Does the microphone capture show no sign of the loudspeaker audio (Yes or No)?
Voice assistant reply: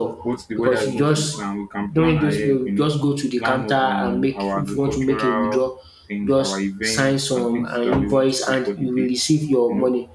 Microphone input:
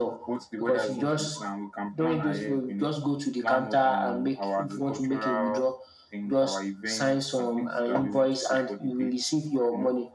No